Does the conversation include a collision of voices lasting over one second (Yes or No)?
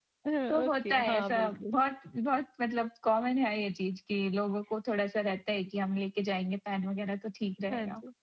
Yes